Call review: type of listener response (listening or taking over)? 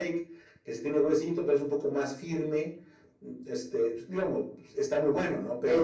taking over